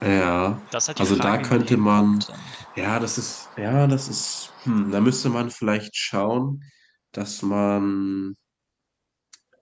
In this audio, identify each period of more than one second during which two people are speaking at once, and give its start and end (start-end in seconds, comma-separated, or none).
1.0-2.2